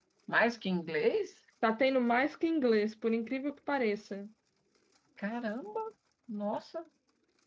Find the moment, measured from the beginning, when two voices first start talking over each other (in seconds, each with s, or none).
none